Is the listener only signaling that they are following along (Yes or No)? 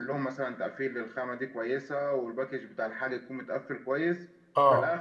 Yes